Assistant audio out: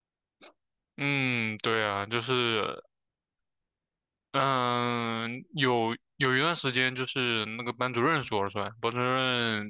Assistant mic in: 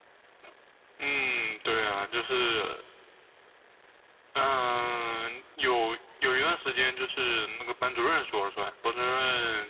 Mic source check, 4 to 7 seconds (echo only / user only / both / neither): echo only